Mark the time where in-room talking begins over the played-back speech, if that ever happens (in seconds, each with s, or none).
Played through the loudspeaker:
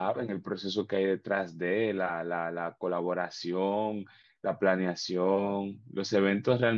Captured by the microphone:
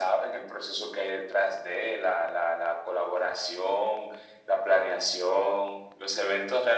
none